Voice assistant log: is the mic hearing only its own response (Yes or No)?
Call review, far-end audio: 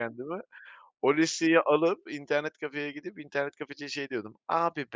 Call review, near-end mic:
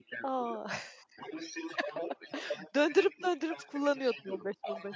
No